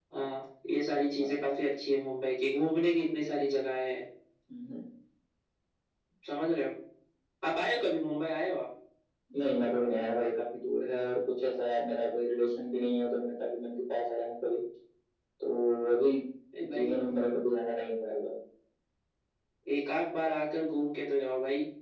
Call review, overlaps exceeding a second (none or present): none